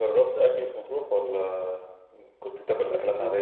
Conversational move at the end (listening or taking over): taking over